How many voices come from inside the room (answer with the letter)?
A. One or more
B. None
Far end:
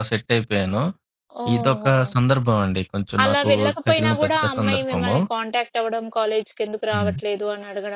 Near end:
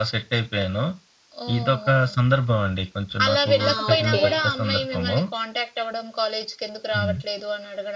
A